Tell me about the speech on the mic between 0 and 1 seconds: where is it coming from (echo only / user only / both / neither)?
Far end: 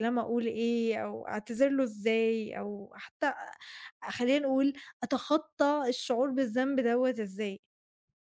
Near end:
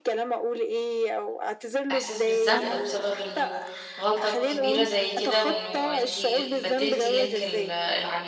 echo only